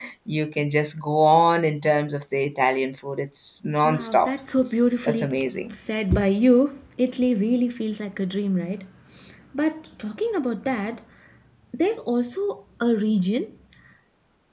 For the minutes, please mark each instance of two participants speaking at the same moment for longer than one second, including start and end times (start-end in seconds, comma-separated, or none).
none